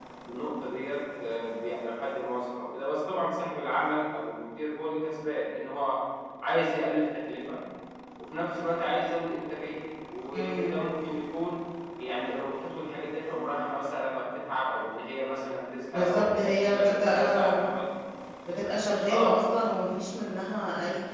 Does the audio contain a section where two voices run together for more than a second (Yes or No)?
Yes